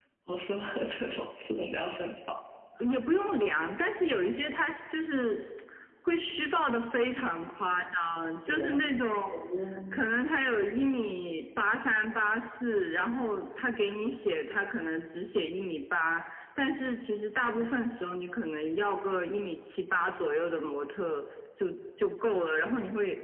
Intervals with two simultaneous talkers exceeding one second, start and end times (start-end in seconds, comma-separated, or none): none